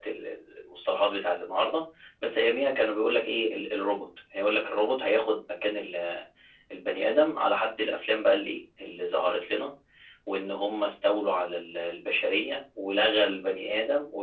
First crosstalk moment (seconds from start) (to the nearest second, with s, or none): none